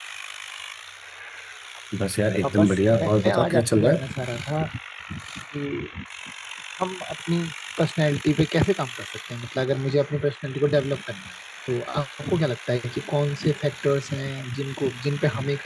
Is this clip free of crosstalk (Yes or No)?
No